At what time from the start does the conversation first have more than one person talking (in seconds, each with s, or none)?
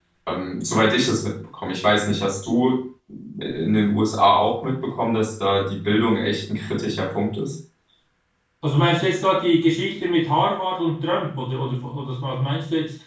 none